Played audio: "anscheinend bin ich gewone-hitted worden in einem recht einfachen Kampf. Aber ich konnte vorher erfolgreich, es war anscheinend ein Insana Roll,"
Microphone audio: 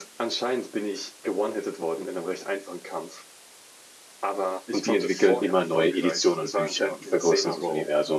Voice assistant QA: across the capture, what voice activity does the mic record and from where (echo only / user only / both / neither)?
both